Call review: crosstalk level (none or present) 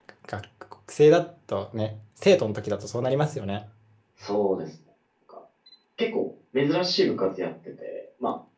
none